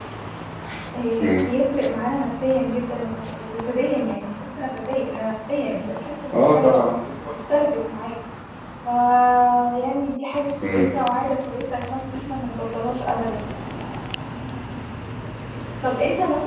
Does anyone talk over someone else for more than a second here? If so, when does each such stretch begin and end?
none

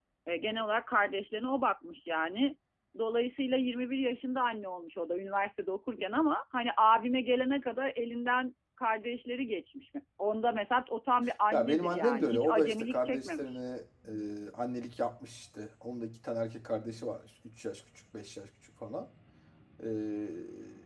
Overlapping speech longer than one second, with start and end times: 11.5-13.4

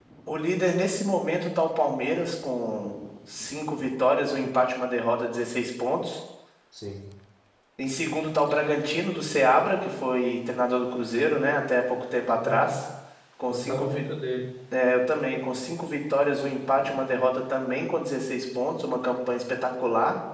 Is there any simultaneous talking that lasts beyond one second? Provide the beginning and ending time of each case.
none

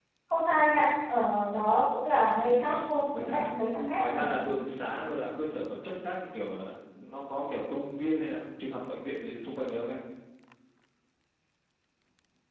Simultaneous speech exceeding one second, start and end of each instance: 2.3-3.6

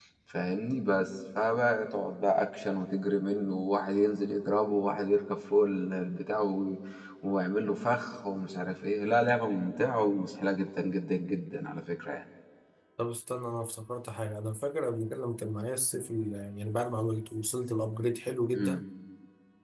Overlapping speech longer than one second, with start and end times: none

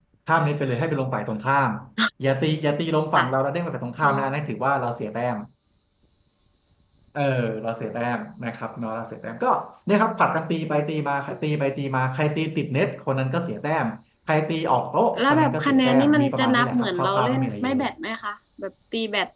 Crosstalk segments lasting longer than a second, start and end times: 15.2-17.8

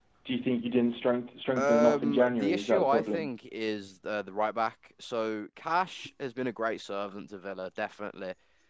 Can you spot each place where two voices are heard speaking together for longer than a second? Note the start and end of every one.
1.6-3.3

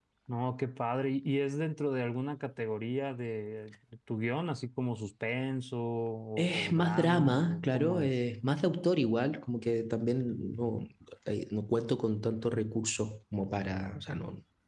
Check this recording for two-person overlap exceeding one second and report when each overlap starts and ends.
6.4-8.1

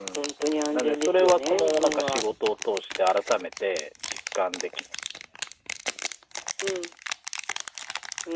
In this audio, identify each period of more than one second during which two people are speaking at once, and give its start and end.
0.7-2.2

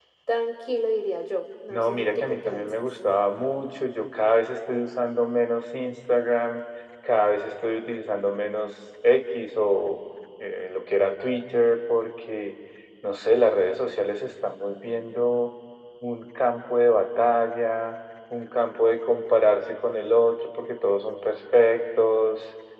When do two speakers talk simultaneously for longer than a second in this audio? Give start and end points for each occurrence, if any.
1.7-3.0

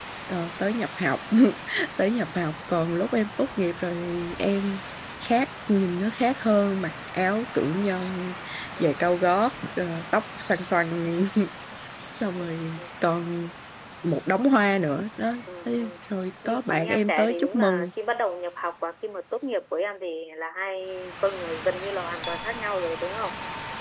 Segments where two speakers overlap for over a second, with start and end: 16.4-17.9

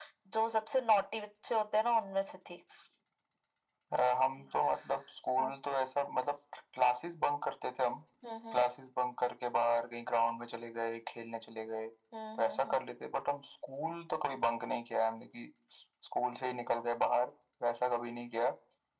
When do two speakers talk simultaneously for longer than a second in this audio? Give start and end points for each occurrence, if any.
none

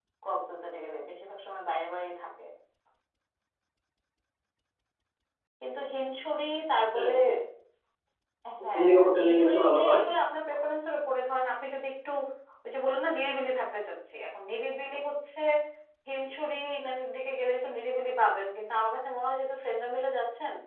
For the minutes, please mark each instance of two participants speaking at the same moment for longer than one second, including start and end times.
8.7-10.0

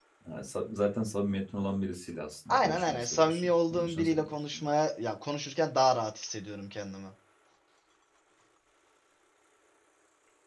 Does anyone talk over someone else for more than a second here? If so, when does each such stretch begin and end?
2.5-4.6

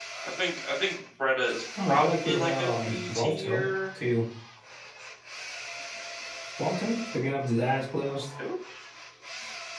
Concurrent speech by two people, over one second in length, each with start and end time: 1.9-3.7

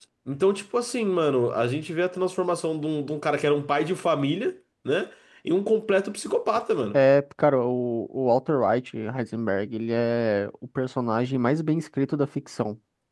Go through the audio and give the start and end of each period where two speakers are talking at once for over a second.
none

